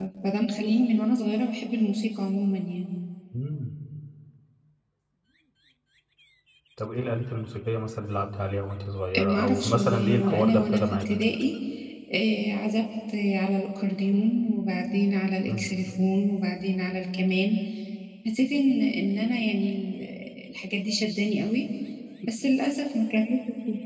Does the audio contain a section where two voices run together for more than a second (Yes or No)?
Yes